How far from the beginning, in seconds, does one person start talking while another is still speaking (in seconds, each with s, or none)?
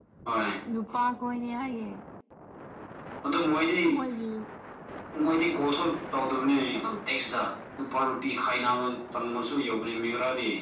none